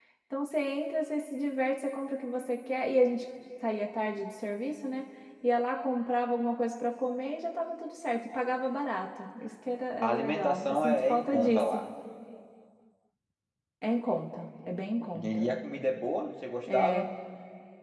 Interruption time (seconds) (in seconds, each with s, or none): 10.0 s